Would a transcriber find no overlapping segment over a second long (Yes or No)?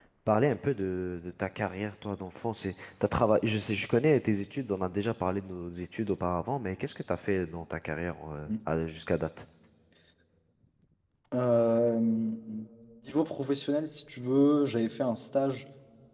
Yes